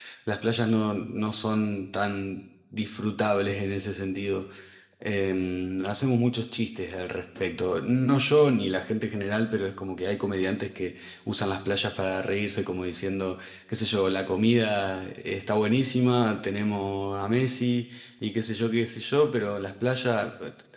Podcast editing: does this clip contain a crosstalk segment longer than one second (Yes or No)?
No